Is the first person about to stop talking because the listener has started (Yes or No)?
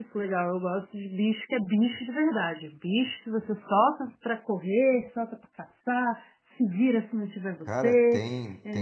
Yes